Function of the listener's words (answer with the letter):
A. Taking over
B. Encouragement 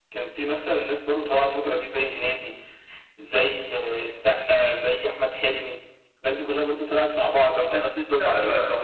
A